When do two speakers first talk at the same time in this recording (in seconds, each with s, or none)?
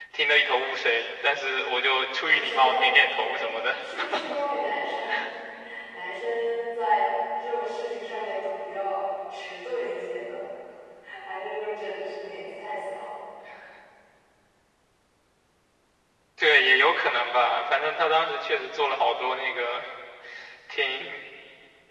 2.3 s